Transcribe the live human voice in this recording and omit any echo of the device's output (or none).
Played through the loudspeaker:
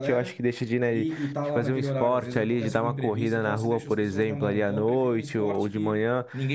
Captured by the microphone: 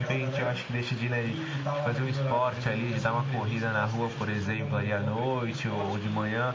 none